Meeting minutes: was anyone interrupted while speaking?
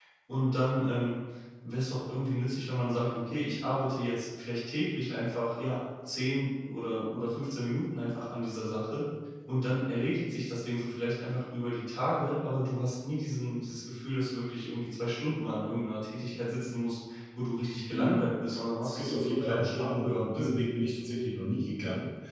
Yes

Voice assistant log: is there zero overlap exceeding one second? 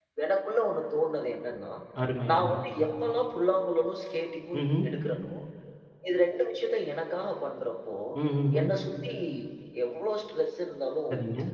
Yes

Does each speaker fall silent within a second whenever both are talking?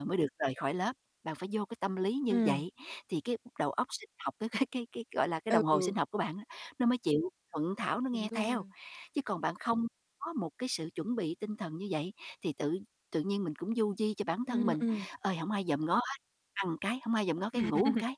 Yes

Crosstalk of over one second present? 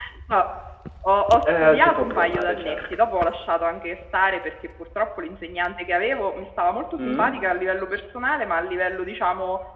Yes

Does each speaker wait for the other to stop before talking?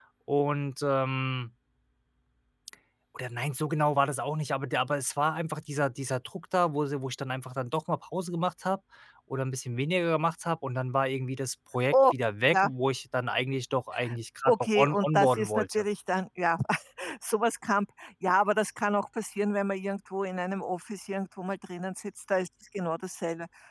No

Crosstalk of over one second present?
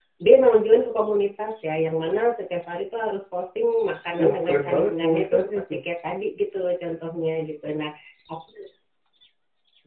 Yes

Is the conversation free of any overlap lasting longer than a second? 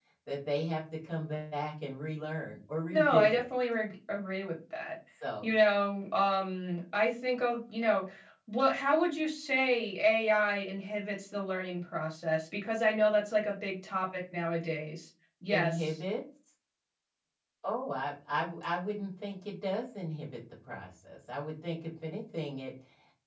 Yes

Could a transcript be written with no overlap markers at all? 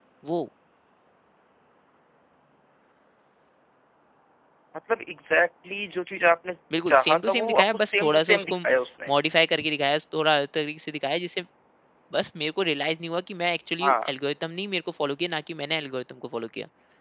No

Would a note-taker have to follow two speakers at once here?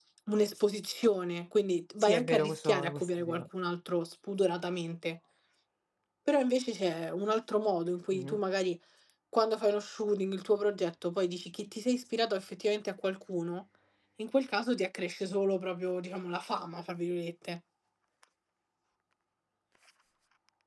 Yes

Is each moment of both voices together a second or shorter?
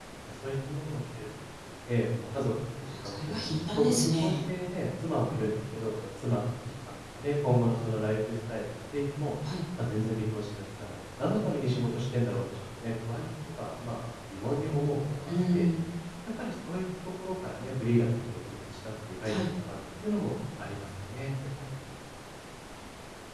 No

